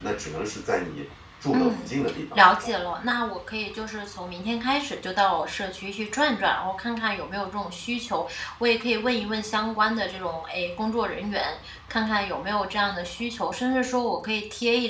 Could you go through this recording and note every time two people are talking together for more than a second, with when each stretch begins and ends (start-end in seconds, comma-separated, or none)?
none